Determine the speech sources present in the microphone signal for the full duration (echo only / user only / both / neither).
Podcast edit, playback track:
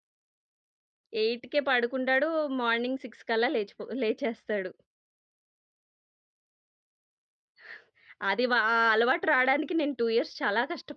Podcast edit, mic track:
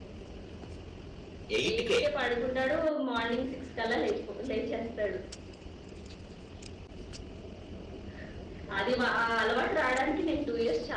both